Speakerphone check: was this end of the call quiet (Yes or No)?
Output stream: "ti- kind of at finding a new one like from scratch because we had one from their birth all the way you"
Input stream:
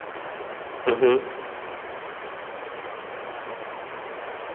No